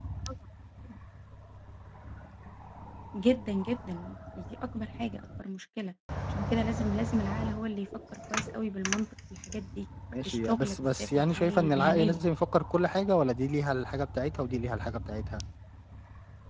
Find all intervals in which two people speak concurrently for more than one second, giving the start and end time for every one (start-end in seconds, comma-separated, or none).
10.2-12.2